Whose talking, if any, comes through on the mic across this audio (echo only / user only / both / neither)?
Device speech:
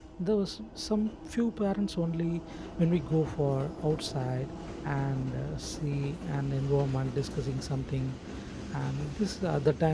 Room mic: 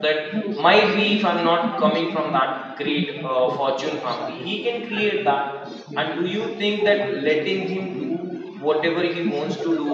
both